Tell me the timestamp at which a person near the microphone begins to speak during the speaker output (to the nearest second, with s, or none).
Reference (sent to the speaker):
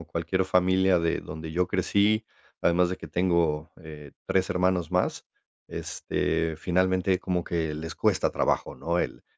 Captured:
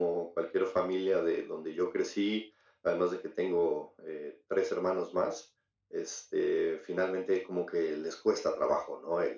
none